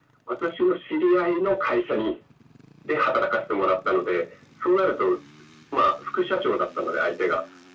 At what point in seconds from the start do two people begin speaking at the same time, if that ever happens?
none

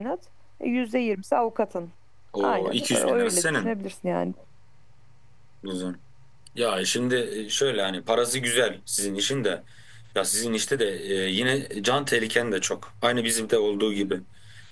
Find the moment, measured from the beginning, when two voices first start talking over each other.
2.4 s

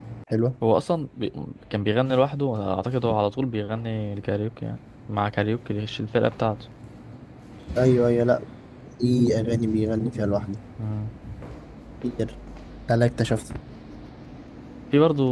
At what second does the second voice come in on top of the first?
none

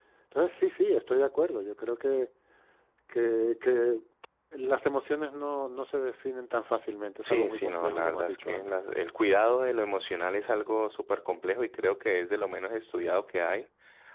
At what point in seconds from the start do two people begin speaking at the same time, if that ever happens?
7.2 s

